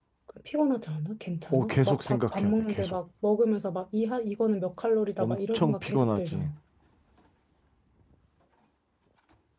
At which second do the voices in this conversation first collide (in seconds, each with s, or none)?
1.5 s